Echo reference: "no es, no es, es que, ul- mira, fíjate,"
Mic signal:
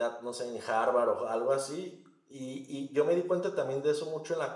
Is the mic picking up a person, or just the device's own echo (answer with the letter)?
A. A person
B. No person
A